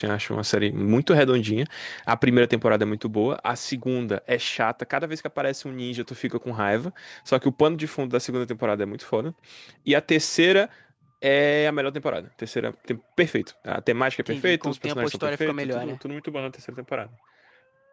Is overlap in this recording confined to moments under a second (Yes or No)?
No